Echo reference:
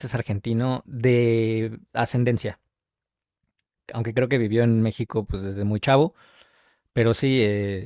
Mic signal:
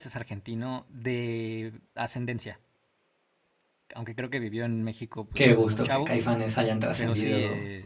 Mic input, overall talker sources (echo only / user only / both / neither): both